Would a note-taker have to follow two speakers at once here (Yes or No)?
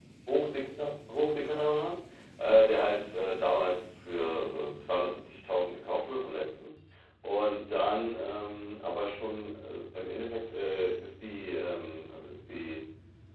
No